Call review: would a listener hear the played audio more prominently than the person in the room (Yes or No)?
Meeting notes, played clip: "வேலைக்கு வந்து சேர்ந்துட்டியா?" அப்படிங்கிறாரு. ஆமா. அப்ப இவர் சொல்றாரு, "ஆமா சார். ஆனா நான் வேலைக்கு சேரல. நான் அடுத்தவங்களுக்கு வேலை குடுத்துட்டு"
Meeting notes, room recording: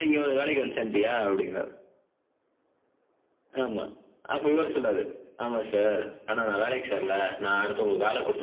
Yes